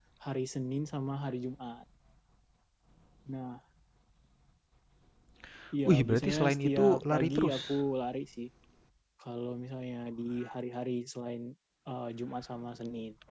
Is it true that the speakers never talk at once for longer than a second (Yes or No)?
No